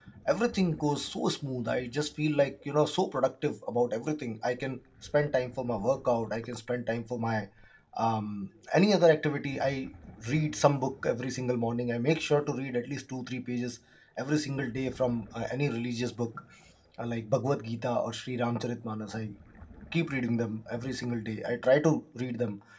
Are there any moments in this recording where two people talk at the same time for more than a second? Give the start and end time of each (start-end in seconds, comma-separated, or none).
none